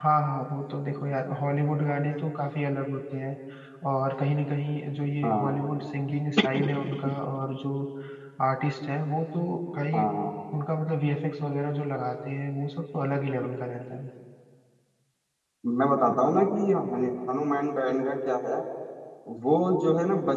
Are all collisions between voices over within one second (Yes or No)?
Yes